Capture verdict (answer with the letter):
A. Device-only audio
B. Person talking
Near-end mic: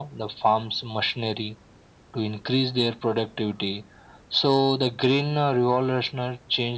A